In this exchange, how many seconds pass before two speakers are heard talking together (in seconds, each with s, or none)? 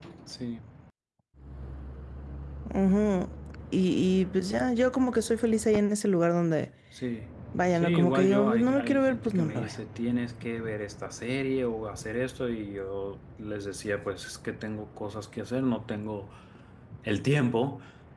7.8 s